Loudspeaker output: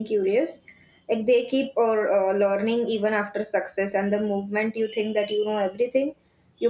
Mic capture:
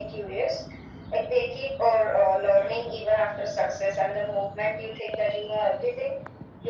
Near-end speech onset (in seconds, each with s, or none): none